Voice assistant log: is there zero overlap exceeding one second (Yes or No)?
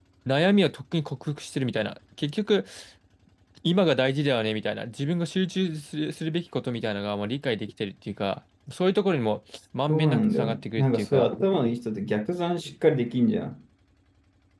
No